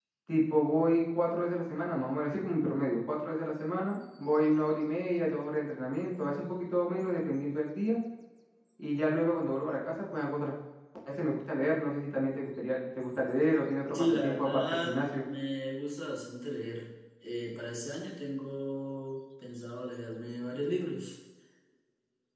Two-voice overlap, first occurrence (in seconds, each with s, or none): 13.9 s